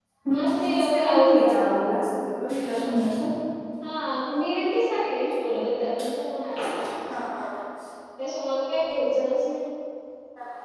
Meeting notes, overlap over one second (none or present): present